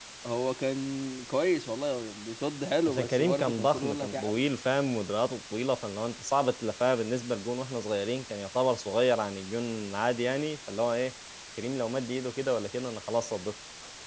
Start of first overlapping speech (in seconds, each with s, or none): 2.9 s